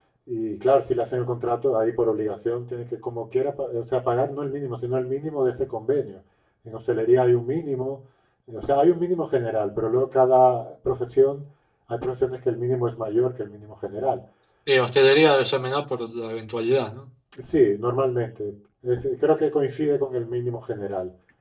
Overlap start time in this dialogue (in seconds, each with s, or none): none